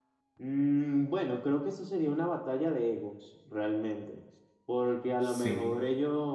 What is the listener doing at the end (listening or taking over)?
listening